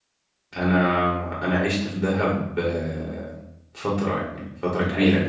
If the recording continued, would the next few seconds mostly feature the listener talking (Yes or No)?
No